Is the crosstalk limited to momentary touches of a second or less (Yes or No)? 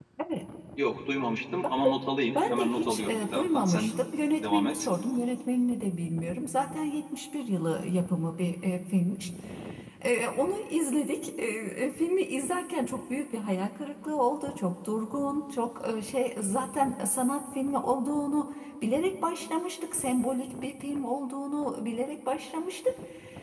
No